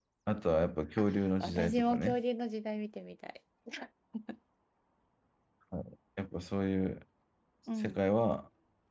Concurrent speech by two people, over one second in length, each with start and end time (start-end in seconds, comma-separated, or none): 1.0-2.2